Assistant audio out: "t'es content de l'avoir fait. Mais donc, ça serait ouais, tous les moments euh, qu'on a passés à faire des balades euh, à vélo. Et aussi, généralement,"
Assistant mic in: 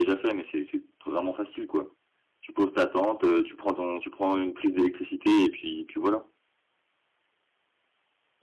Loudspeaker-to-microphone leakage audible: No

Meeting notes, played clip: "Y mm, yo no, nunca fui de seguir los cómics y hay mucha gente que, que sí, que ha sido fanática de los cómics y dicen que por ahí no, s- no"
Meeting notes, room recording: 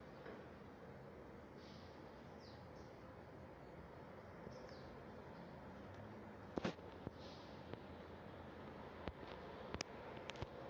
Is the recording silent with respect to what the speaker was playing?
Yes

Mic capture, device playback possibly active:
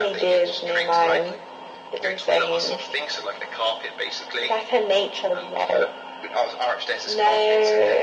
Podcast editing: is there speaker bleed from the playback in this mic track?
Yes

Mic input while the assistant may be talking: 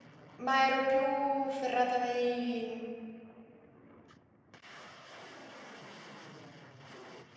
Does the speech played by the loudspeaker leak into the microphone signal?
No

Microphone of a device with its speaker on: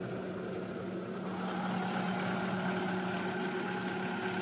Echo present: No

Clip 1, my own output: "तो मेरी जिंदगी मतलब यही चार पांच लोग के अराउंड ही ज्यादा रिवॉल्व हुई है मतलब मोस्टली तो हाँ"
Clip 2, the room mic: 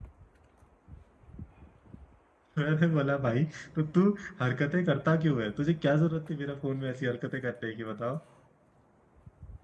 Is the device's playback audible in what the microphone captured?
No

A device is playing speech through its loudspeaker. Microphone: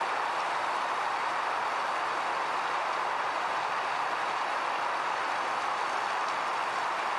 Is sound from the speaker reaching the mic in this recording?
No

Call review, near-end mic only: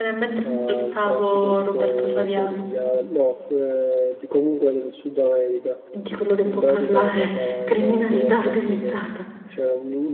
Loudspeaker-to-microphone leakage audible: Yes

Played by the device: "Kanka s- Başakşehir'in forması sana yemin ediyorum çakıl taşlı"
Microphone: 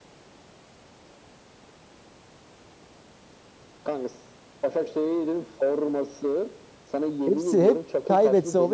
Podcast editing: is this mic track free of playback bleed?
No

